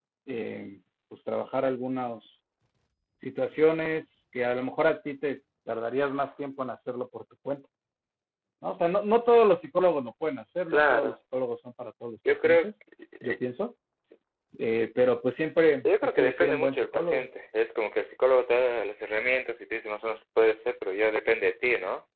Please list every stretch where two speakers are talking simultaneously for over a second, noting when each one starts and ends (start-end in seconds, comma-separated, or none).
15.8-17.3